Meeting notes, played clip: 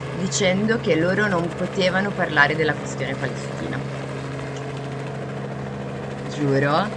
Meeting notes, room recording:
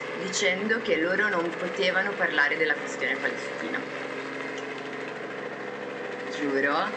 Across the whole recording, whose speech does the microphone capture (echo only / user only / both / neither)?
echo only